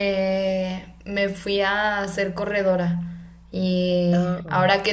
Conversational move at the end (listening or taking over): listening